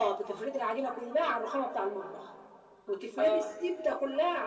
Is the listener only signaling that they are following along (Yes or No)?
Yes